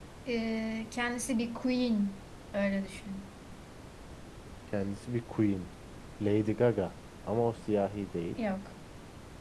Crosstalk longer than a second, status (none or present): none